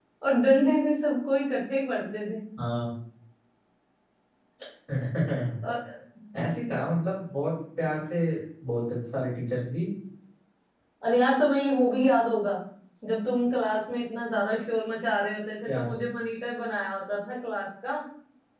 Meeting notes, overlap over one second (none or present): none